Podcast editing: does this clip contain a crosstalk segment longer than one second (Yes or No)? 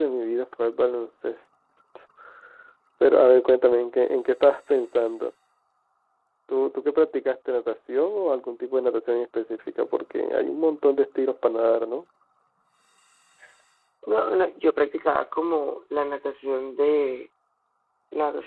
No